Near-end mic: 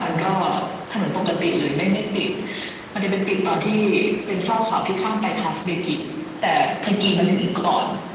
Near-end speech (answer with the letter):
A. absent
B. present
A